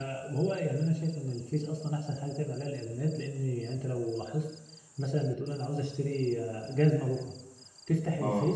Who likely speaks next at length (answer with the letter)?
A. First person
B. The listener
A